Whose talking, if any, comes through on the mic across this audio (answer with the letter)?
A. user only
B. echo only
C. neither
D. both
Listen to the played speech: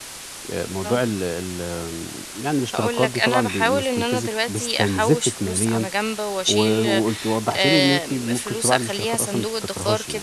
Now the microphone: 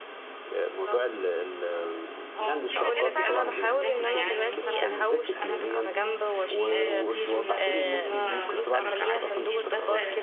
D